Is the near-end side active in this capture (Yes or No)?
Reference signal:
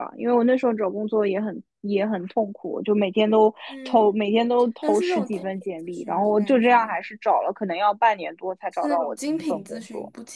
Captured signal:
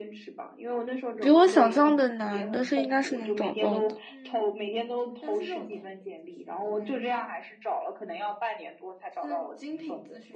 Yes